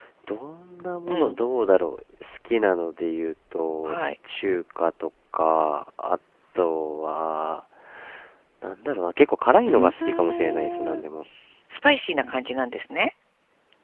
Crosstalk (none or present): present